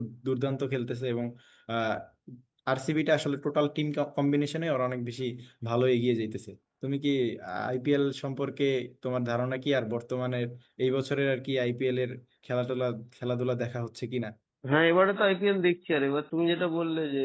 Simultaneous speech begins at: none

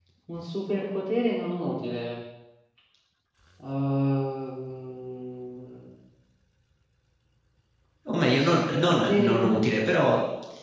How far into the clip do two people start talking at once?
8.2 s

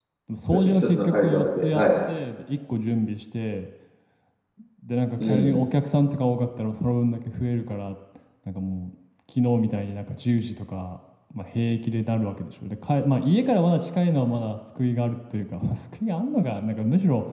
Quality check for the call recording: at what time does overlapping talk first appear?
0.5 s

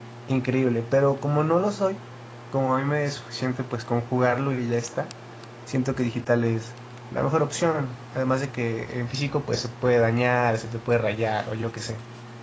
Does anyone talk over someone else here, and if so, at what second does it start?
none

